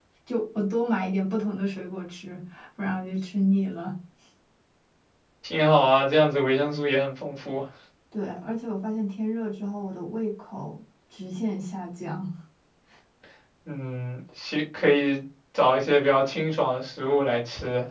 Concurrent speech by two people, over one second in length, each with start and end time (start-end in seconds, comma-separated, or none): none